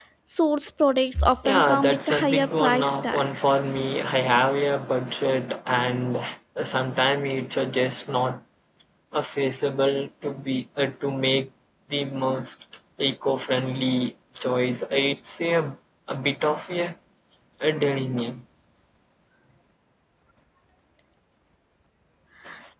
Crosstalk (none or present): present